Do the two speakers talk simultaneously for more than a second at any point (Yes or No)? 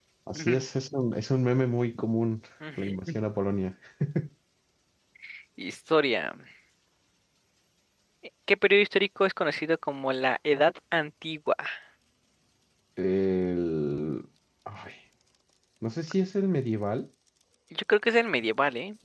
No